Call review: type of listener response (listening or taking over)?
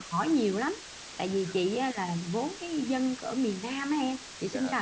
listening